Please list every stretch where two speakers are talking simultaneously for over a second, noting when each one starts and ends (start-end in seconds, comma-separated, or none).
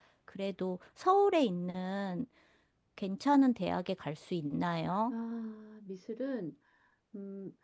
none